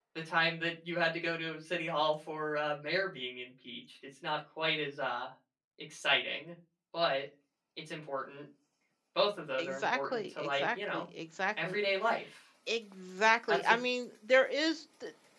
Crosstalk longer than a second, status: present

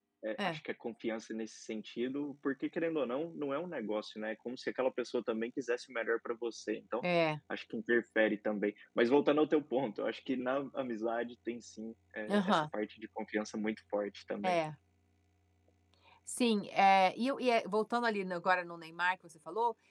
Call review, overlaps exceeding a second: none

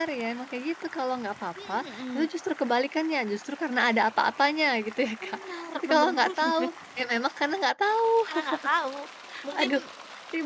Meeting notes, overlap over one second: present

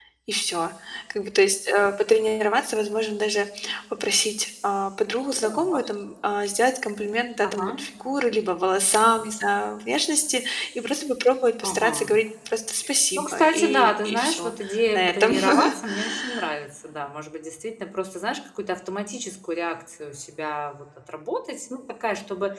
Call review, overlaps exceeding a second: present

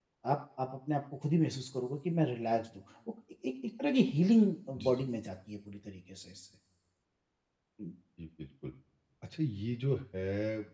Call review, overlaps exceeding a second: none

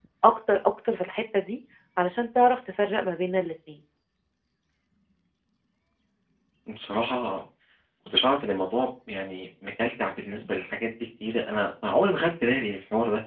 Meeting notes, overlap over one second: none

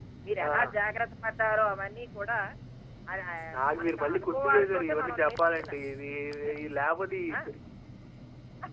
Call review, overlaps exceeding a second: present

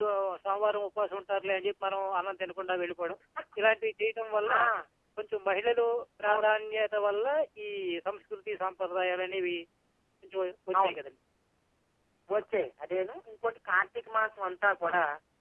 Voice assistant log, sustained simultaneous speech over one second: none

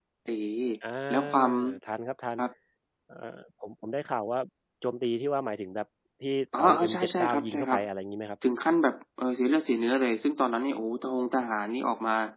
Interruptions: present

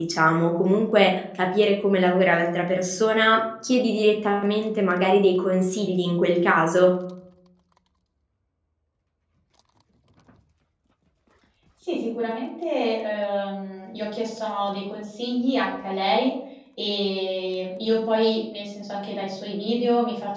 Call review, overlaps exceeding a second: none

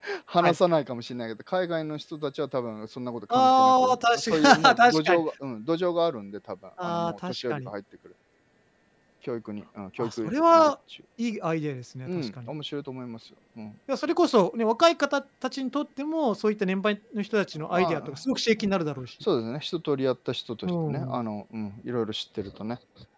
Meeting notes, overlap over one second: present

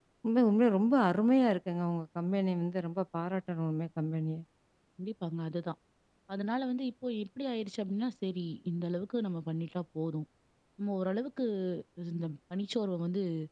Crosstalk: none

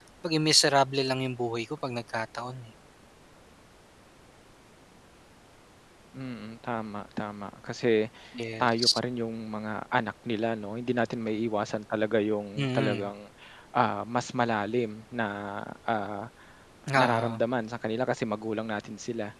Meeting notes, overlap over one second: none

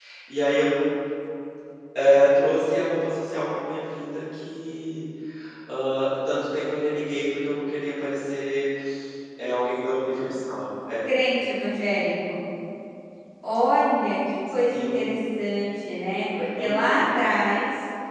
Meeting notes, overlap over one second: none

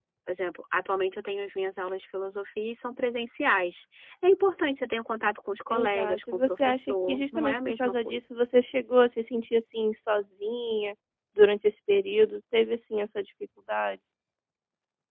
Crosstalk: present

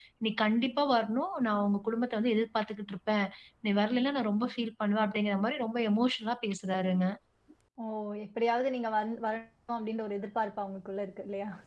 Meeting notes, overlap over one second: none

